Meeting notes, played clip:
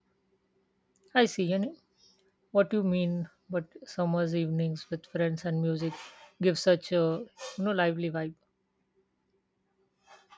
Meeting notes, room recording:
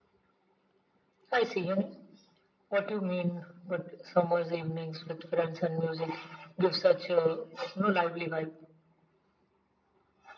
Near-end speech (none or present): none